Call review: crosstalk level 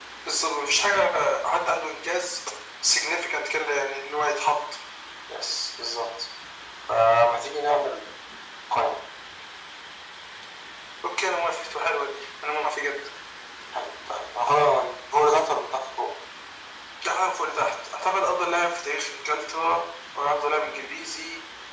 none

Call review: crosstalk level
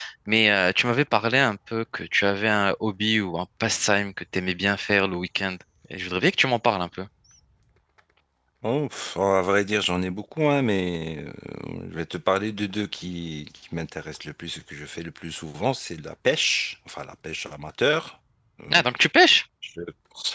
none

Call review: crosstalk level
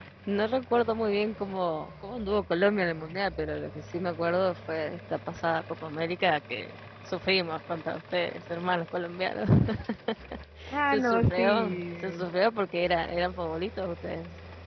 present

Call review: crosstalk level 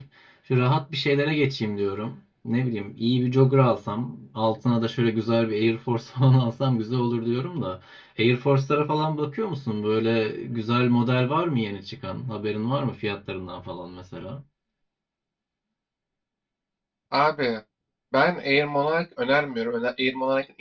none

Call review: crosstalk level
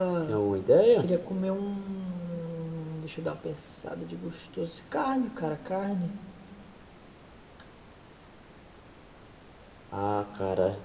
none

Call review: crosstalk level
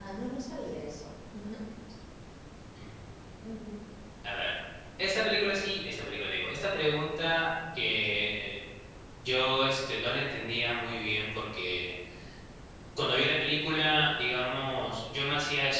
none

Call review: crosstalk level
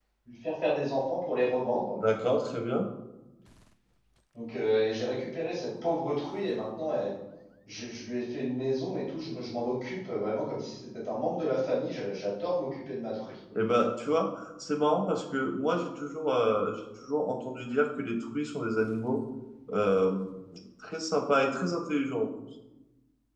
none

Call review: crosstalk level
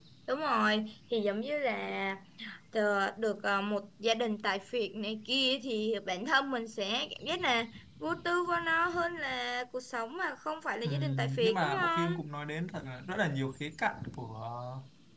present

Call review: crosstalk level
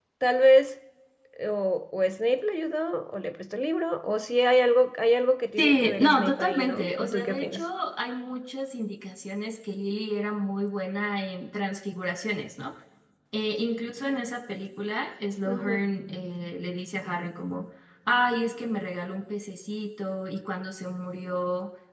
present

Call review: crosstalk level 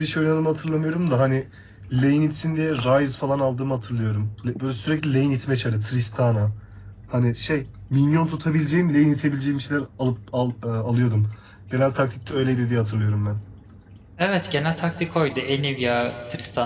none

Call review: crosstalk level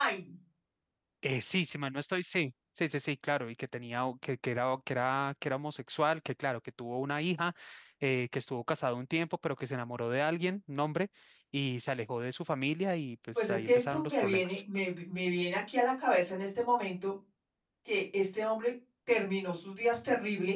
present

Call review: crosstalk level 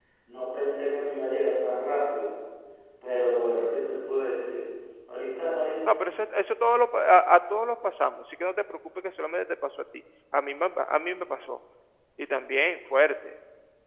none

